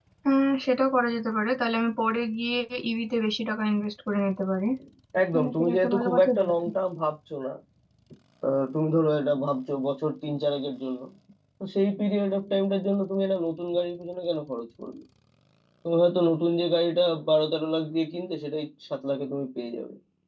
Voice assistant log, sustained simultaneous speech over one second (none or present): present